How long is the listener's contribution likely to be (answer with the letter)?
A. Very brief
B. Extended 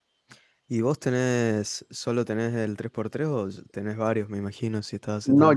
B